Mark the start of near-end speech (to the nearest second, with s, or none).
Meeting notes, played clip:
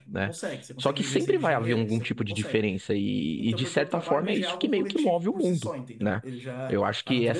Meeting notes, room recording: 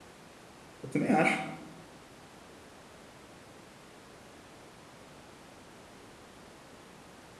1 s